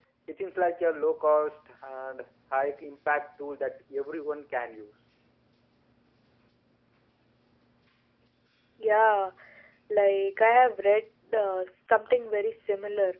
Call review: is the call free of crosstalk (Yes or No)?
Yes